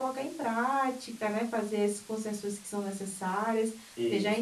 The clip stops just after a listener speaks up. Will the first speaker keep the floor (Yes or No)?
Yes